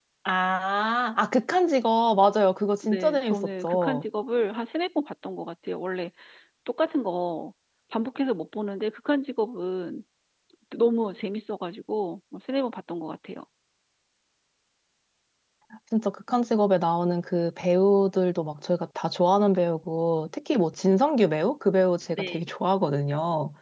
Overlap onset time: 2.8 s

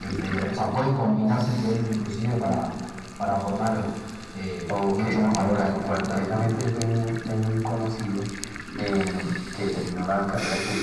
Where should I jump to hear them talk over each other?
4.7 s

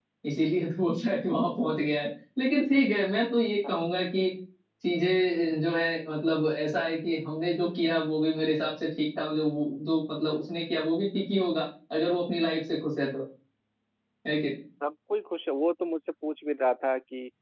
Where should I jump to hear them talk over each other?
none

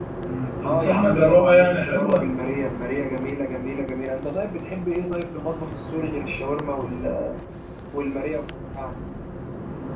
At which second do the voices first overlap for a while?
0.6 s

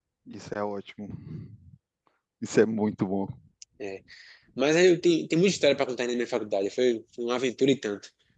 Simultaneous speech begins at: none

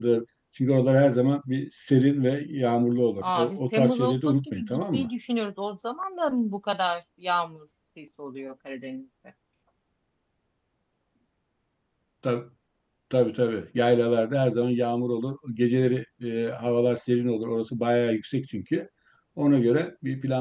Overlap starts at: 3.2 s

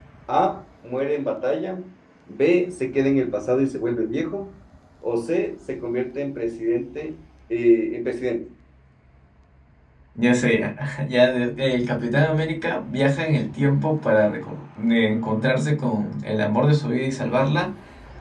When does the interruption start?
none

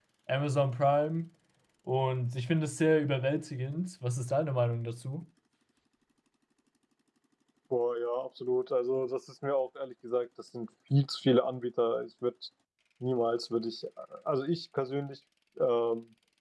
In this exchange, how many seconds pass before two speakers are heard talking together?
none

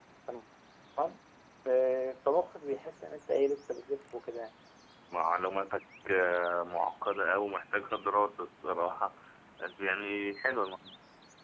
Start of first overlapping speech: none

